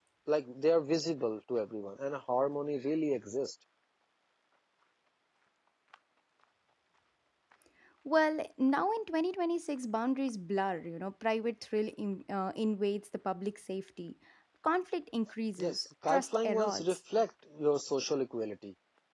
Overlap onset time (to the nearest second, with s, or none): 16 s